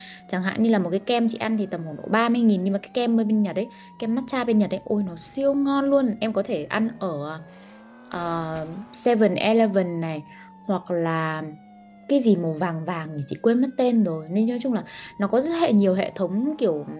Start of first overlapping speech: none

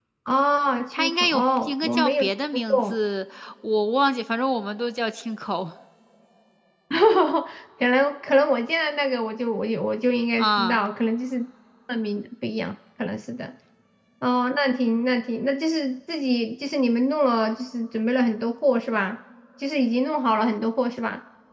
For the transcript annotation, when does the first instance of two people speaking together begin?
0.9 s

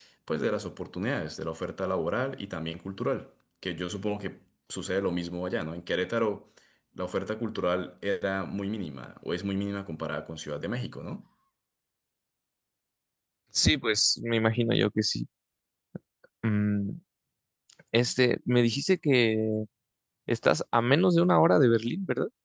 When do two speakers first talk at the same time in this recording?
none

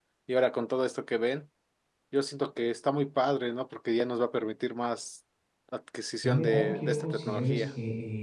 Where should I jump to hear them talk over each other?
6.2 s

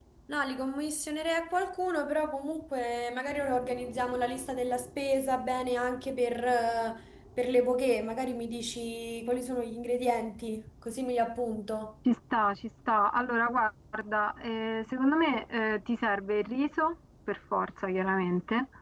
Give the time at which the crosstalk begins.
none

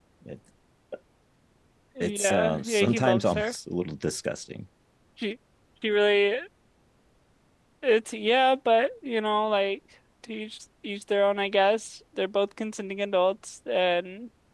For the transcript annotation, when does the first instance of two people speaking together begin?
2.0 s

